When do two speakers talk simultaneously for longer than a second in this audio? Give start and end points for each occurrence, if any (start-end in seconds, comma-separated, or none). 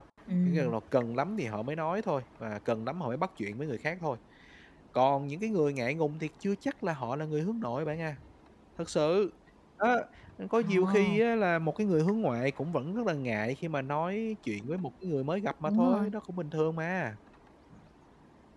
none